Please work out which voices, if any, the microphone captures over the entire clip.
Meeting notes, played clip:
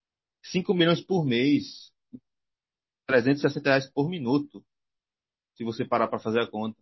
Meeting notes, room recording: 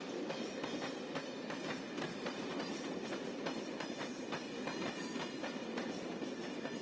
neither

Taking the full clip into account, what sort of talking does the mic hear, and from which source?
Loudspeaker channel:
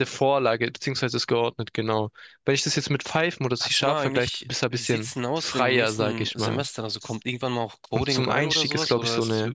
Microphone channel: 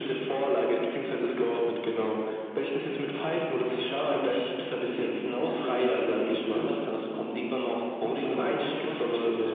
echo only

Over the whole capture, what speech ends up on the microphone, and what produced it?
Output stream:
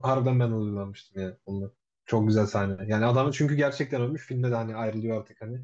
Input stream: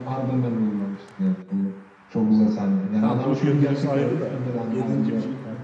both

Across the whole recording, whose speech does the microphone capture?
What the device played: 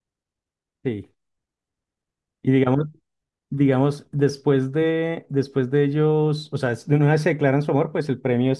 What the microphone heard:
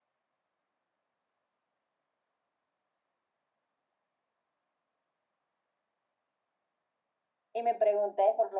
user only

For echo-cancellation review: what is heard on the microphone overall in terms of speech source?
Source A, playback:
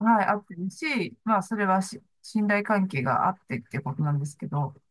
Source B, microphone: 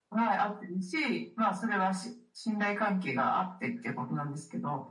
echo only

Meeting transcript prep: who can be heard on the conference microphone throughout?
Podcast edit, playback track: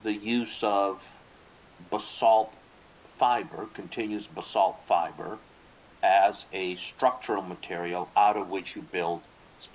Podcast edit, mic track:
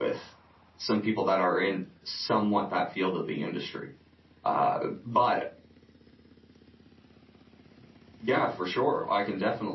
user only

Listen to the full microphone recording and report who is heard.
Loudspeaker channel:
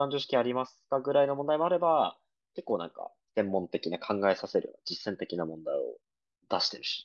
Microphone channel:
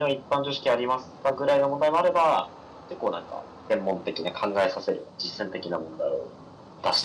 echo only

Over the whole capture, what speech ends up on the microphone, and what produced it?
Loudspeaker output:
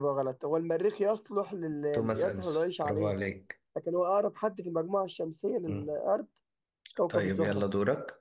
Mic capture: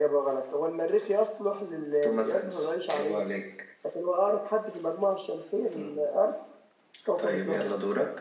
echo only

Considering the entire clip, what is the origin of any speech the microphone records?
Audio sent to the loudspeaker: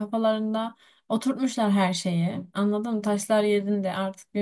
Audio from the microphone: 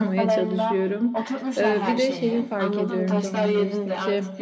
both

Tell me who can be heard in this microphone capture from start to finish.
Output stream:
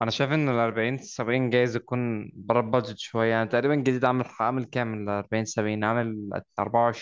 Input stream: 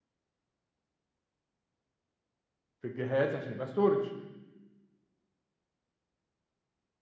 user only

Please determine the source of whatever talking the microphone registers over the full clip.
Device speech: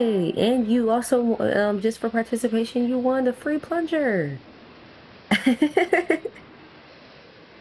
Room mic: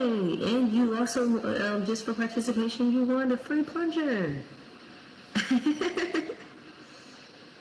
echo only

